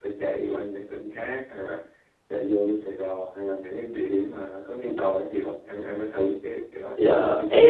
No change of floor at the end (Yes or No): No